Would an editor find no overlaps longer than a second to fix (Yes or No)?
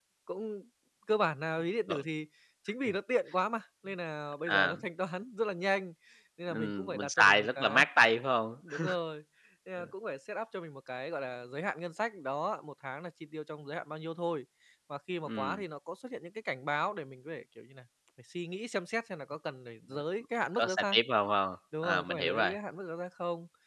No